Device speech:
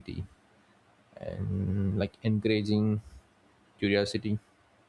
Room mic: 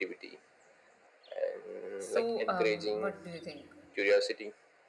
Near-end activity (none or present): present